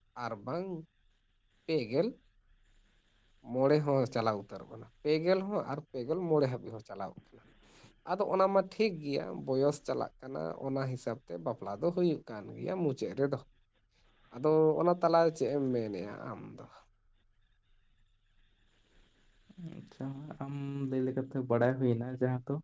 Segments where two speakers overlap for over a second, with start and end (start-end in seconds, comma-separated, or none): none